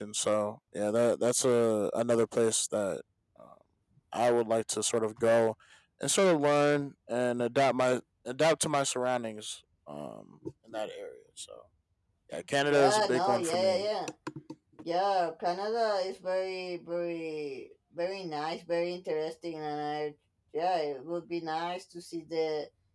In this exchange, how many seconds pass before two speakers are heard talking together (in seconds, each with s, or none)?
12.6 s